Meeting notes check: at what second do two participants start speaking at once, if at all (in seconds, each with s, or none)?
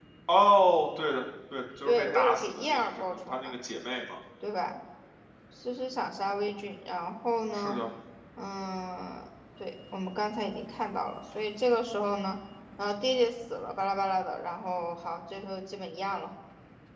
1.9 s